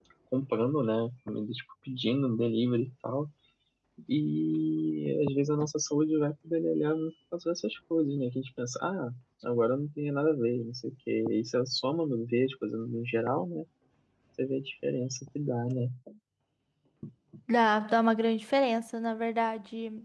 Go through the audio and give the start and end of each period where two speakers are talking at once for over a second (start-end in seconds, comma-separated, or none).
none